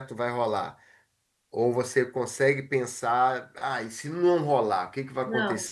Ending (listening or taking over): taking over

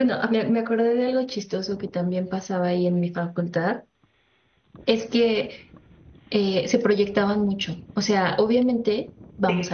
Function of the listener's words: listening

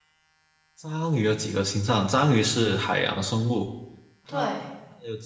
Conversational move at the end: listening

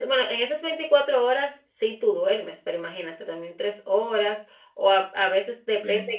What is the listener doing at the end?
listening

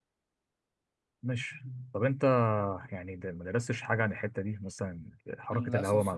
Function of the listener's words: taking over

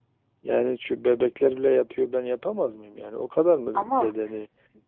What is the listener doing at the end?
listening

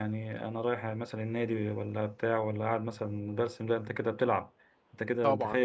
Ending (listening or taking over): taking over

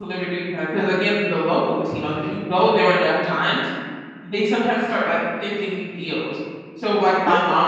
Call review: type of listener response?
listening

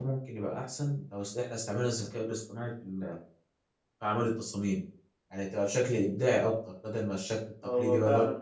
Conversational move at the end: taking over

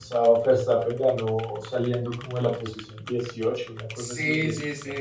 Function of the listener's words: taking over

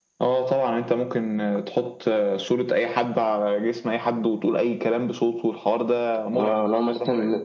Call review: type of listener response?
taking over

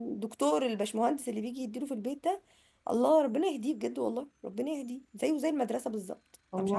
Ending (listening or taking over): taking over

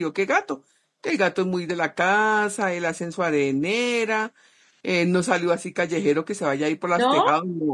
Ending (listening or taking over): listening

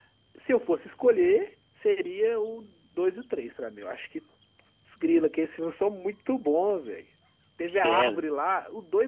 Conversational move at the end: listening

